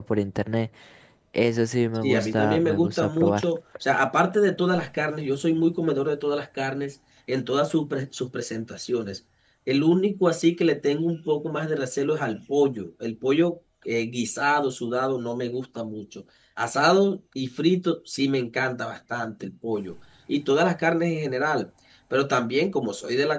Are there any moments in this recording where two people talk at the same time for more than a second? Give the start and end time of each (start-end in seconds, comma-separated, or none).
2.0-3.4